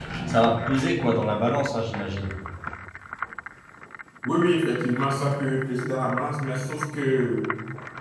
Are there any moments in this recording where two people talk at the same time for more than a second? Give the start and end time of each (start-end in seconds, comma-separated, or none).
none